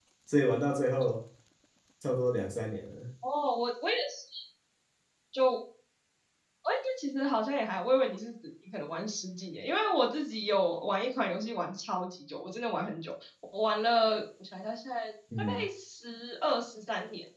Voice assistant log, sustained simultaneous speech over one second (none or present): none